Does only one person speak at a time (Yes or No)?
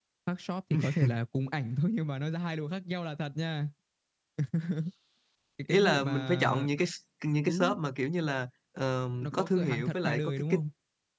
No